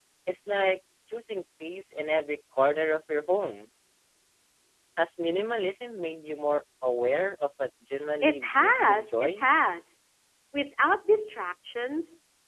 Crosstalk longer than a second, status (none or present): present